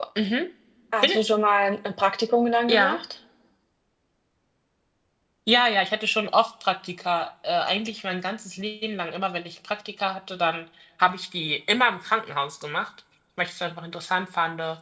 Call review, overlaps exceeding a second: none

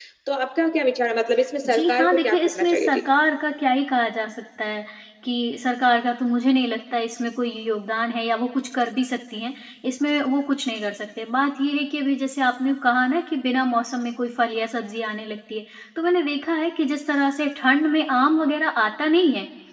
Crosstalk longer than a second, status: present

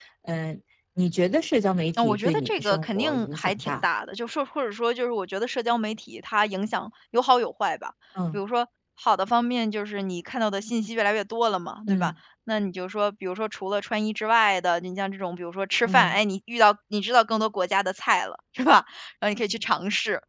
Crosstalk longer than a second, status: present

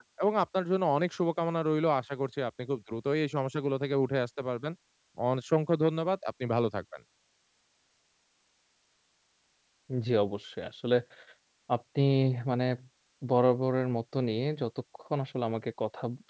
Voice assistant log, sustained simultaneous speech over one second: none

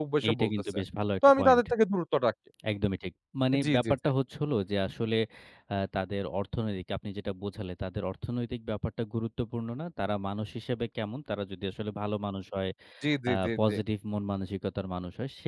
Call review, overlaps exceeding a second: none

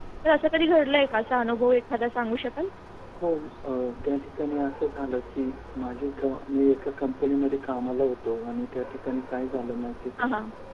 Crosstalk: none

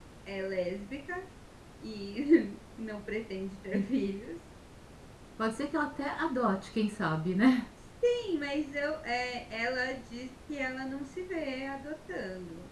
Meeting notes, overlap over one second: none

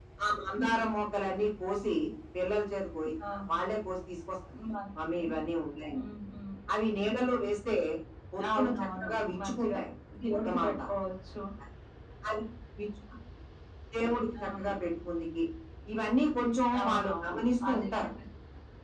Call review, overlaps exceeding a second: present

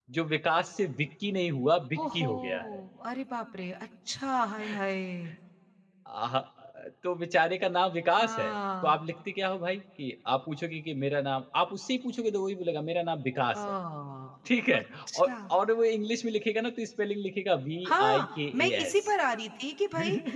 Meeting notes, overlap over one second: present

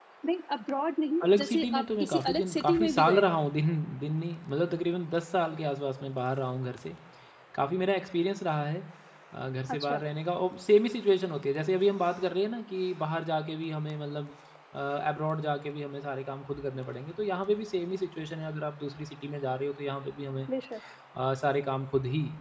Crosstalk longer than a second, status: present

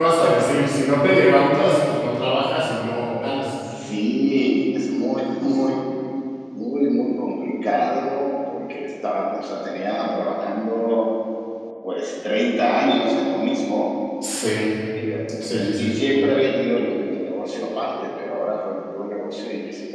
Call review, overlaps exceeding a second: none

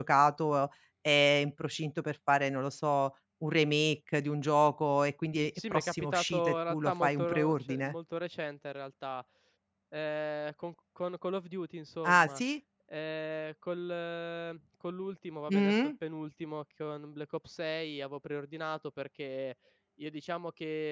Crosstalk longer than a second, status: present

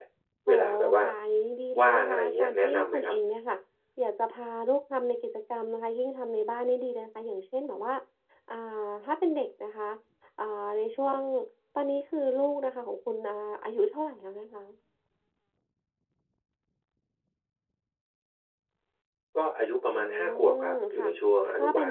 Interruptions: present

